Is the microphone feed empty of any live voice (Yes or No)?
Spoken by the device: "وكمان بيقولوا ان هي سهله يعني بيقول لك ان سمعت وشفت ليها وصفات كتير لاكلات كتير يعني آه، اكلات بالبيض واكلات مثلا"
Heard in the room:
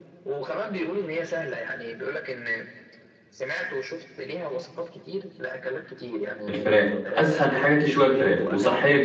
No